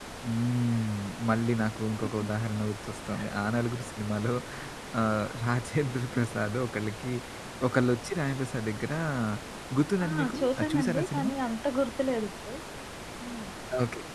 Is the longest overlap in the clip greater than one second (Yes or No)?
Yes